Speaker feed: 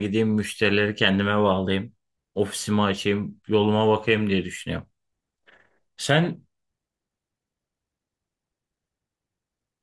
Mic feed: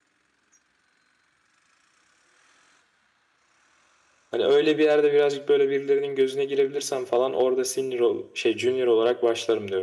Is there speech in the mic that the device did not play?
Yes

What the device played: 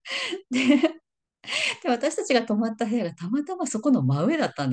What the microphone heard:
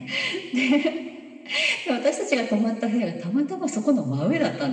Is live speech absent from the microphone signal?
Yes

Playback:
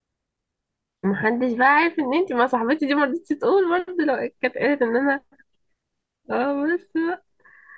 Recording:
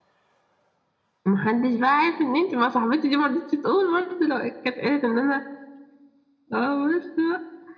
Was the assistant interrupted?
No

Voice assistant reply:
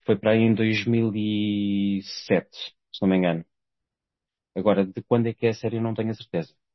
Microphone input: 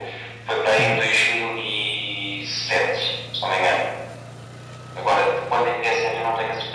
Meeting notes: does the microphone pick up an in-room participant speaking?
Yes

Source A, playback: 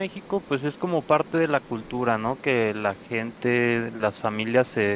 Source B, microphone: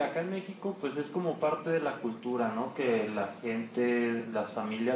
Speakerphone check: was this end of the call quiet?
Yes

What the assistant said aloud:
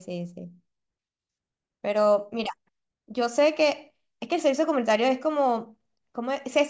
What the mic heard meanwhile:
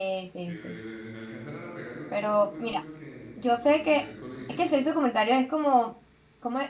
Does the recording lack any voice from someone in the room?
No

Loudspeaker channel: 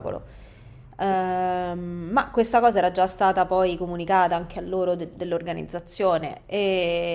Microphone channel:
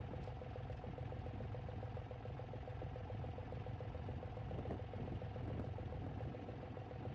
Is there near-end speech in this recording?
No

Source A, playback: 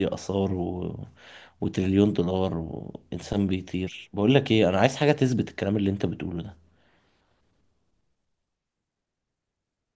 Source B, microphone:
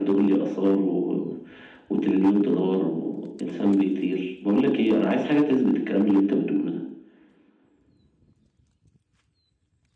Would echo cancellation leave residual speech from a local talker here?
No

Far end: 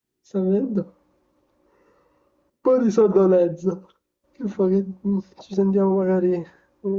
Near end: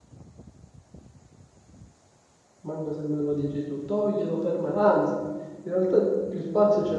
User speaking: Yes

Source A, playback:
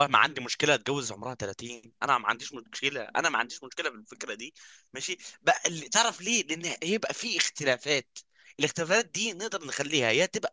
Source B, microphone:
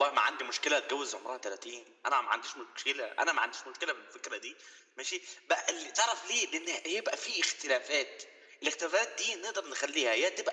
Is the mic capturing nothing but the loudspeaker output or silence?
Yes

